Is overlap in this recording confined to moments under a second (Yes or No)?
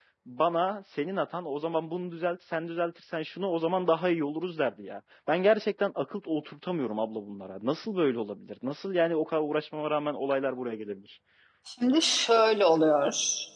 Yes